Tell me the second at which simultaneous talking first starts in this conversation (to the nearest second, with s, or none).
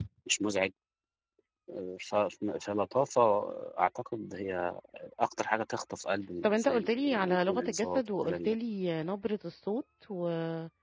6 s